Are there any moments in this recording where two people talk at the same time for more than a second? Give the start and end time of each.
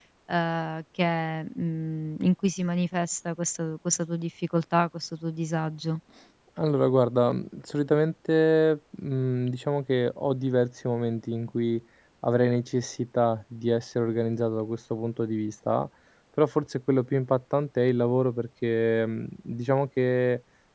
none

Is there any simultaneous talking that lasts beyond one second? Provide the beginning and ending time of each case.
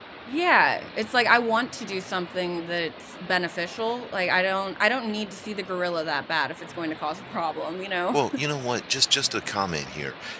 none

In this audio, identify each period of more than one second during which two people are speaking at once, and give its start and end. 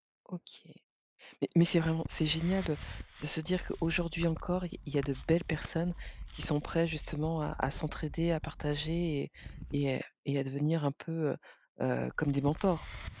none

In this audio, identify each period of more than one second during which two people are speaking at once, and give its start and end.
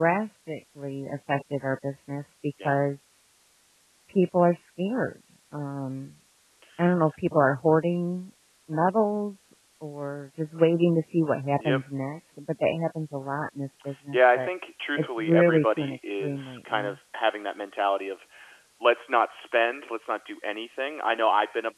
15.0-16.9

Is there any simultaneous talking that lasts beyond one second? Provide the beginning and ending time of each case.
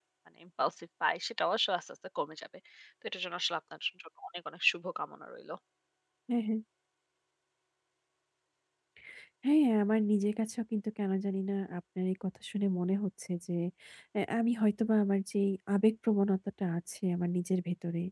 none

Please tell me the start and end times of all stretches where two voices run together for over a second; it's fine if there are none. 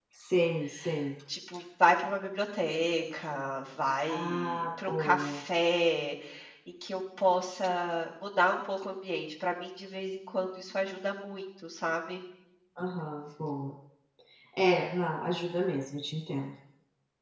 4.1-5.4

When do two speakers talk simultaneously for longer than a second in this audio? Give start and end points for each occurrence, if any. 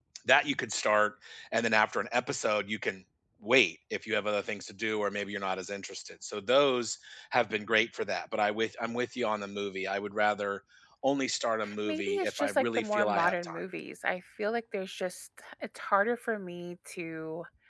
11.8-13.5

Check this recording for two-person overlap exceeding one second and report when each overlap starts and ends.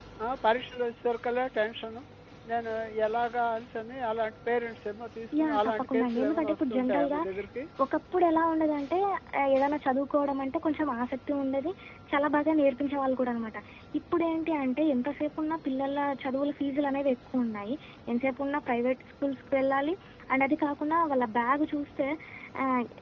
5.4-7.2

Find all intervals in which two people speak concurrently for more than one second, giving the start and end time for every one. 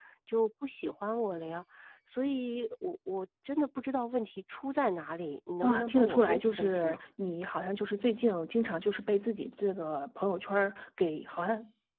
5.6-7.0

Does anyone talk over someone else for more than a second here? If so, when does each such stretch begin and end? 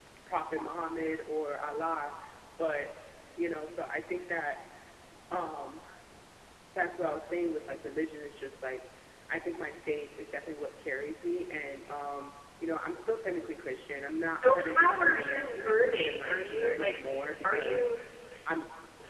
14.4-17.0

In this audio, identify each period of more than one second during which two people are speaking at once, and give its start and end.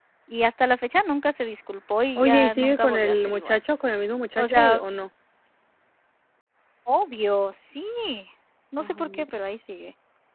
2.2-3.6

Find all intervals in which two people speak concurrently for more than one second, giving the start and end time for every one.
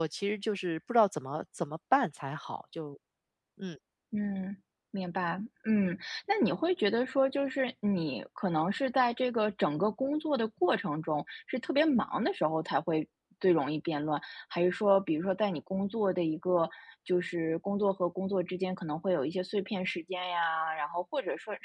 none

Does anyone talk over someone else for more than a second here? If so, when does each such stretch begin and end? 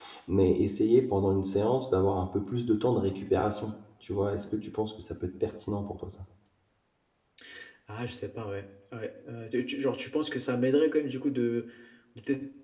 none

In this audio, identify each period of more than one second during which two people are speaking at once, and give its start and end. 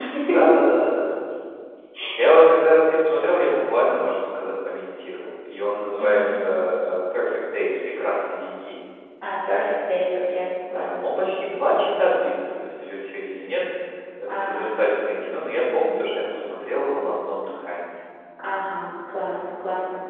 none

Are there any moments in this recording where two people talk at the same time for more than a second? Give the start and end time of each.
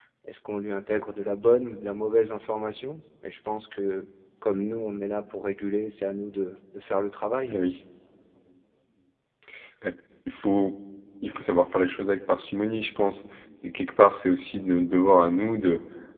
none

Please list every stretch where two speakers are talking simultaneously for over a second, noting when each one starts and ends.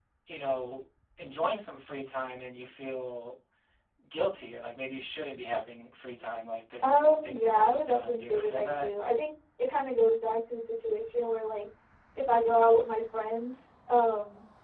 6.8-8.9

